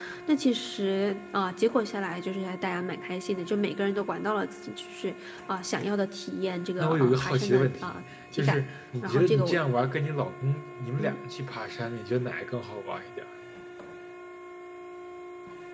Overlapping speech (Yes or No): Yes